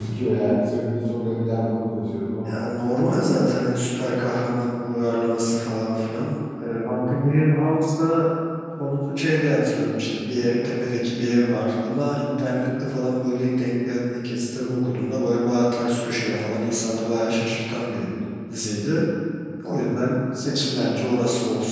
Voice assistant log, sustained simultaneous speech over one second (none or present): none